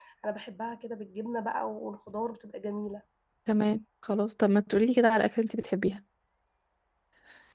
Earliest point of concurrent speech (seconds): none

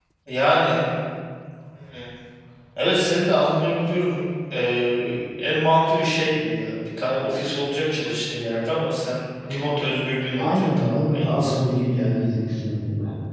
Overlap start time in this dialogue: 10.4 s

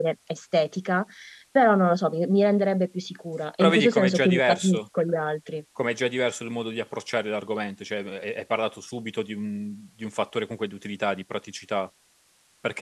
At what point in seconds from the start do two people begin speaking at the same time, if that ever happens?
3.6 s

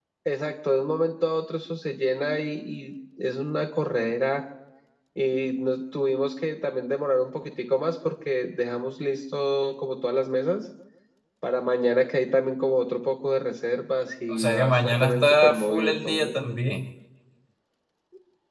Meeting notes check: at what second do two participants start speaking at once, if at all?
14.3 s

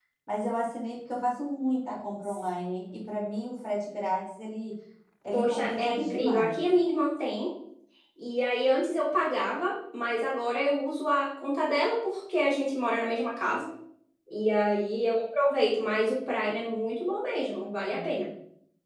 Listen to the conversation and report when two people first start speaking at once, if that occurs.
5.3 s

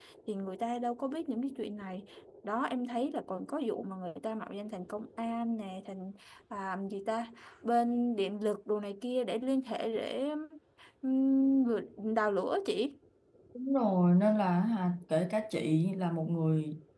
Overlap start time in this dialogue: none

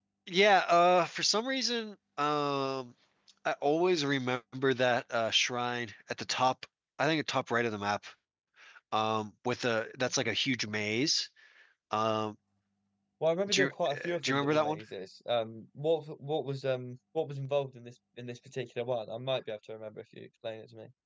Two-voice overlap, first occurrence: 13.5 s

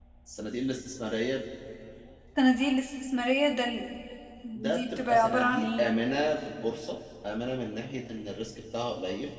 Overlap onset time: 4.5 s

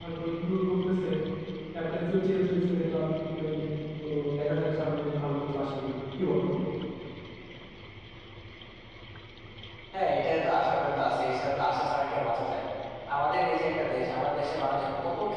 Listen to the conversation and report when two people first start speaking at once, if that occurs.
none

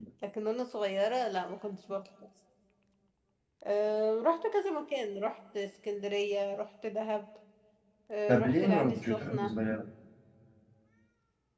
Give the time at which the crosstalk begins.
8.3 s

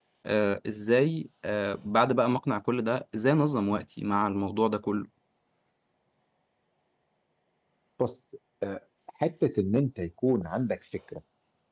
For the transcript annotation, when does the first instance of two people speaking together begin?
none

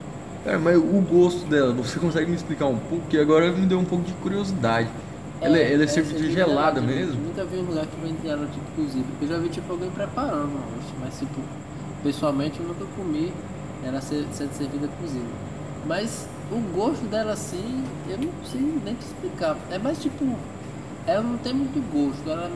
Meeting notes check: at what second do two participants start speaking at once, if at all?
5.4 s

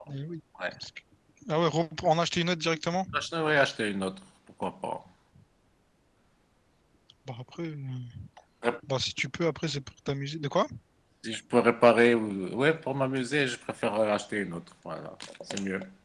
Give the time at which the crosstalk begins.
none

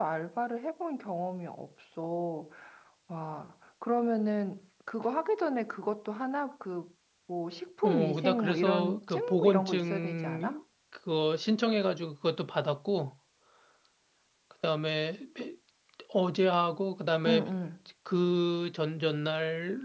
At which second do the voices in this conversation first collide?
7.8 s

